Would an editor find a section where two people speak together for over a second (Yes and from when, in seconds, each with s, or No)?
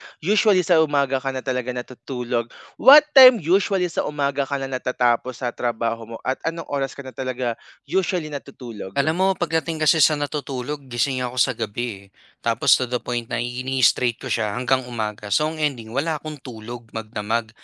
No